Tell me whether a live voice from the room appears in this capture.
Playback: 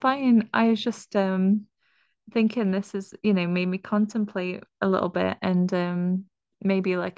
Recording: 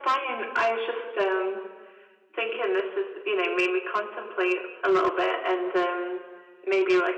No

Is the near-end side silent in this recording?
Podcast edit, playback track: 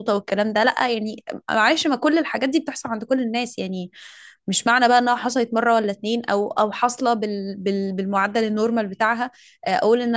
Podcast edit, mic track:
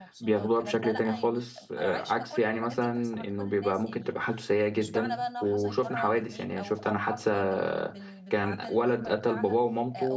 No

